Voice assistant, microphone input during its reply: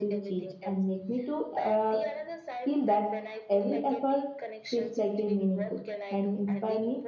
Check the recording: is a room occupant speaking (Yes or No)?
Yes